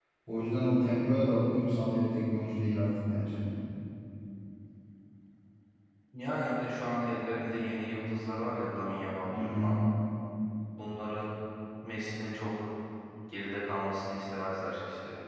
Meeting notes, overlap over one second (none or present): none